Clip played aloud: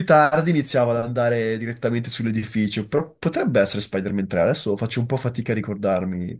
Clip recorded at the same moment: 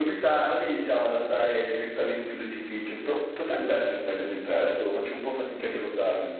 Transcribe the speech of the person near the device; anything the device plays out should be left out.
none

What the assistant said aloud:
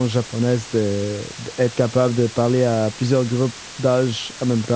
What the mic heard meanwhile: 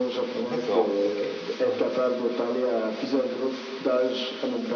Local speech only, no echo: D'accord, ok. Ouais.

